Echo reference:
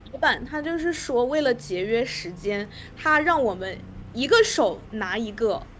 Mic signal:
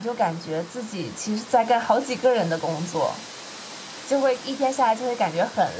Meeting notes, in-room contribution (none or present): present